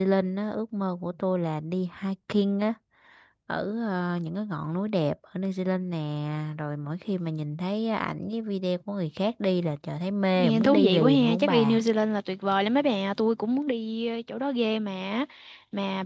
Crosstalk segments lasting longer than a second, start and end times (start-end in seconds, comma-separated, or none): 10.4-11.8